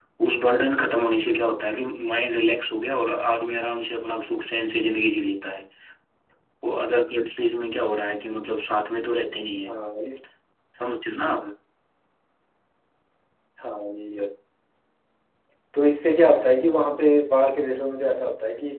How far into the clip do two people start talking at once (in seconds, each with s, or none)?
none